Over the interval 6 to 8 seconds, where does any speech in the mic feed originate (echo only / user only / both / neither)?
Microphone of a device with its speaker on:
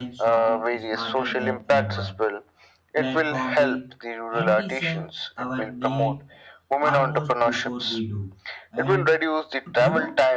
both